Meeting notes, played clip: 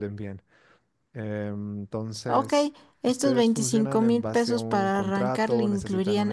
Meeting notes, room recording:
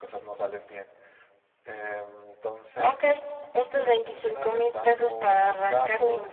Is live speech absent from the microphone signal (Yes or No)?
Yes